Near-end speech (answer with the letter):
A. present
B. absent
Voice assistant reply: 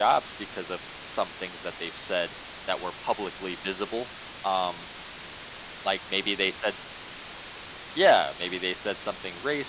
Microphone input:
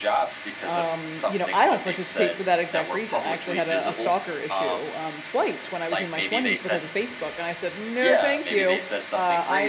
A